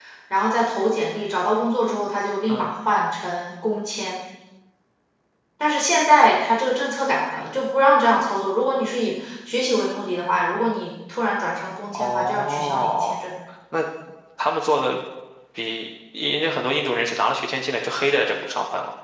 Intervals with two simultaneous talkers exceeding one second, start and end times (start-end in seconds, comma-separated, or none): 11.9-13.1